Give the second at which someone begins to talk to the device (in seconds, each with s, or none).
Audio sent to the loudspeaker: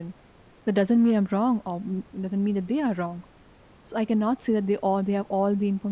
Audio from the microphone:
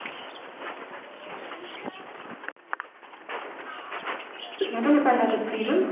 4.5 s